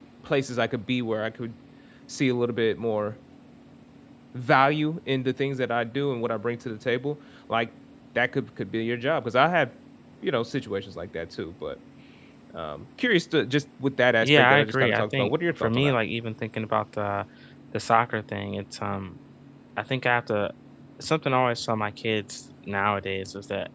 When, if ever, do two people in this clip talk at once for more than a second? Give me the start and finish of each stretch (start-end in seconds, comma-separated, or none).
14.2-15.9